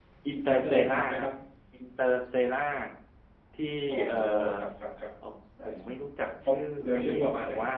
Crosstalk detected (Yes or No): Yes